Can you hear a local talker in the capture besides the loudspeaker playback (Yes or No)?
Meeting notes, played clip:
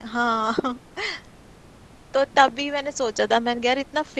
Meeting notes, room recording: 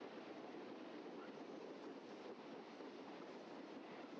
No